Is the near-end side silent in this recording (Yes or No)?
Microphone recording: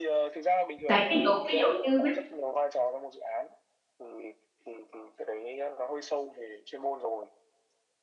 No